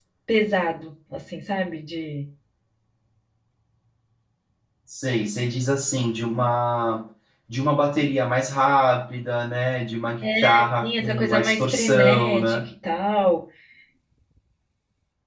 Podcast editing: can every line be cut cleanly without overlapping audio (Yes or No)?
No